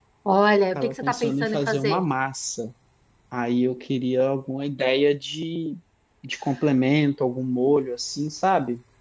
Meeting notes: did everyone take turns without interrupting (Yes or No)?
No